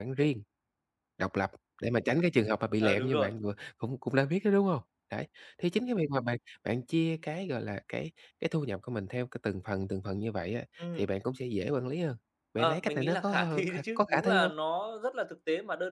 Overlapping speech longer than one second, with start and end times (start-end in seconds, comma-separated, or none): 12.6-14.5